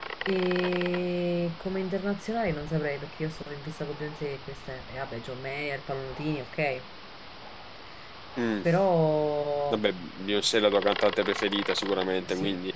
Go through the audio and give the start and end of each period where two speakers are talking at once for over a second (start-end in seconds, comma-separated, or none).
none